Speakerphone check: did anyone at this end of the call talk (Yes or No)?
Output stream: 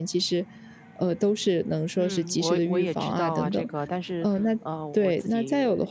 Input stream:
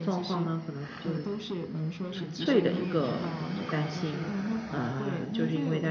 Yes